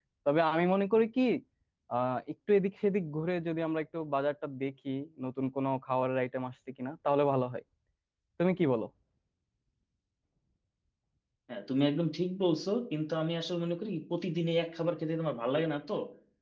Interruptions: none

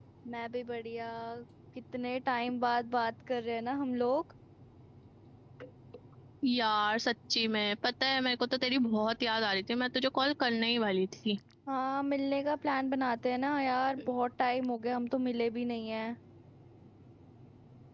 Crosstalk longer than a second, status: none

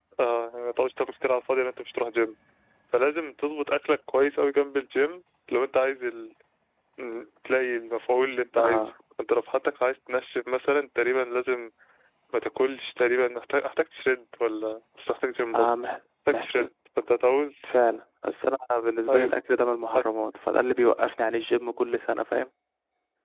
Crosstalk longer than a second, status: none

